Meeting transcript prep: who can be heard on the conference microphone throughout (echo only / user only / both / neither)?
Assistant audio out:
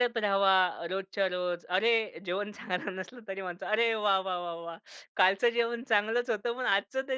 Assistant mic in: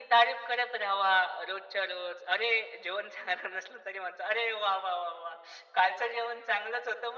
echo only